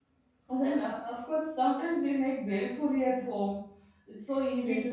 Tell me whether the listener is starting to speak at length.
Yes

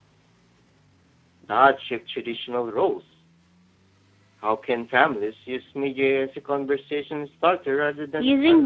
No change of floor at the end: No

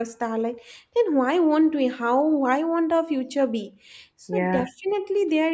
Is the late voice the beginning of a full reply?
No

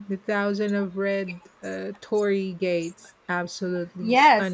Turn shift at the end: Yes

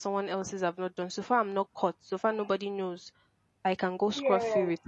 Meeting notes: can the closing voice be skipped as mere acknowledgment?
Yes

